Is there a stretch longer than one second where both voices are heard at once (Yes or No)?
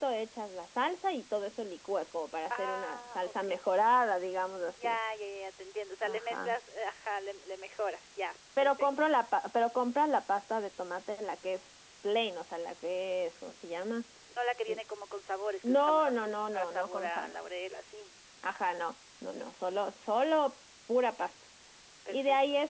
Yes